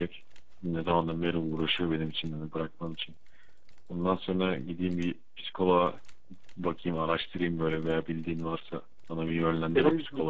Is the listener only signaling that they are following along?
No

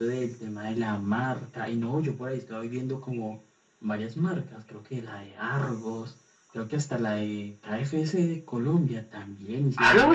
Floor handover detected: No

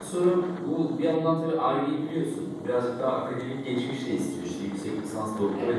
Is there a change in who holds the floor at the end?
No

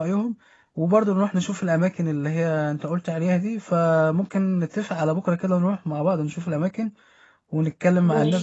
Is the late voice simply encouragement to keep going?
Yes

